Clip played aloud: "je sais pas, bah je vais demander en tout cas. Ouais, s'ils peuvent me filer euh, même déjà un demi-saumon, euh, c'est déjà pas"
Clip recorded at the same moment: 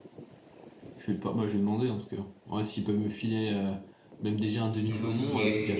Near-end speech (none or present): present